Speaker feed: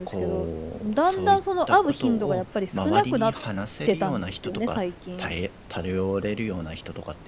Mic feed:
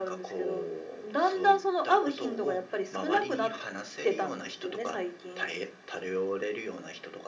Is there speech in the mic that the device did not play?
No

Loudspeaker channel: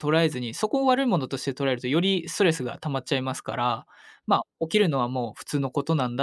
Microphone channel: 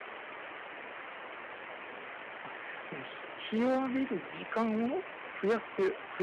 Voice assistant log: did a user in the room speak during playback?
Yes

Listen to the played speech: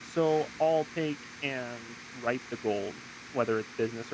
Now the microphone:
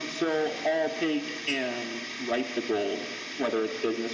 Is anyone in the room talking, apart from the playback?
No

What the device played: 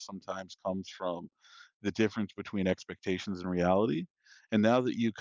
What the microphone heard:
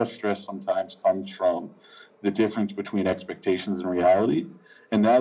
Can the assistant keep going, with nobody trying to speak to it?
Yes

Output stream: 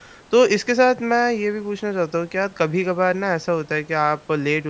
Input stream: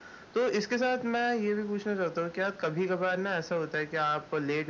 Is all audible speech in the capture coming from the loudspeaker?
Yes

